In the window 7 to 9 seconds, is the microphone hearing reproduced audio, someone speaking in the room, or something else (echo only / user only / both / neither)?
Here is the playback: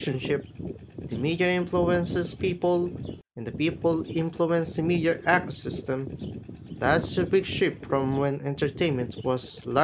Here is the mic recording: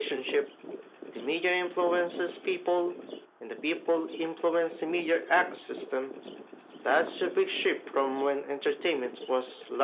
echo only